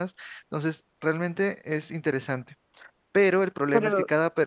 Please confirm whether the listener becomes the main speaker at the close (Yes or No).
No